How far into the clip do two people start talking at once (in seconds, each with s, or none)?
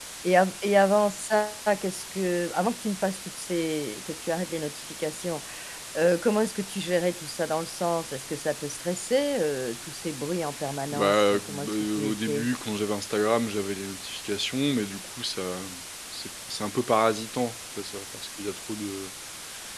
10.9 s